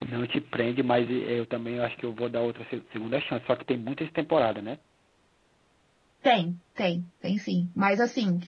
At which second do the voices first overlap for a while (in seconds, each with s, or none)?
none